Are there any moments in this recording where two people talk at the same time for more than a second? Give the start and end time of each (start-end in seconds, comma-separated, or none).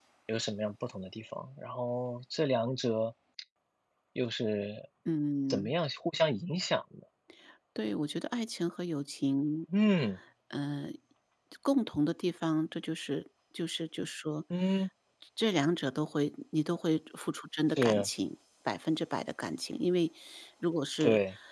none